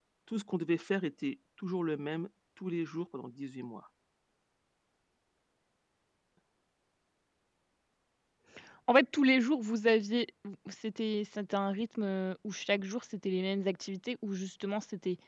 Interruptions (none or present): none